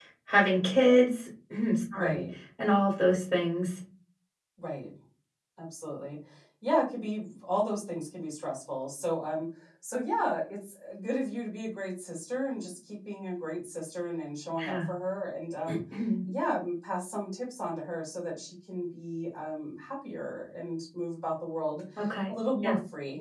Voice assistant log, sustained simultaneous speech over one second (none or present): none